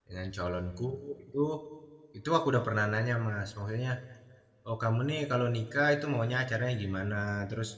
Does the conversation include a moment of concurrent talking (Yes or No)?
No